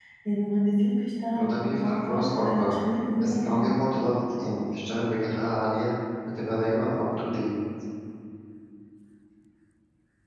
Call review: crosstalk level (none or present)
present